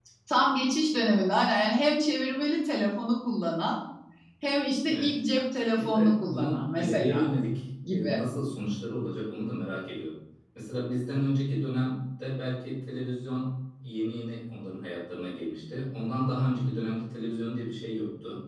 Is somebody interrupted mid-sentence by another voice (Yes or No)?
Yes